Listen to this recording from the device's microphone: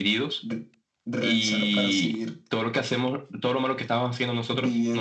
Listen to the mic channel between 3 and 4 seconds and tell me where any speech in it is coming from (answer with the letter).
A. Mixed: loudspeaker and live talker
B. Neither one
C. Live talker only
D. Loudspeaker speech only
D